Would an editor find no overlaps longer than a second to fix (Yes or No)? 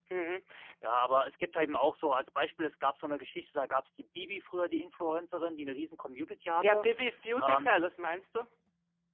Yes